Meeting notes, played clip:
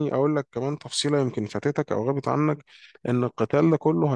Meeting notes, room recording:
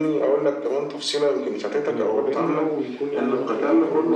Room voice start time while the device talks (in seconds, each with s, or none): 1.8 s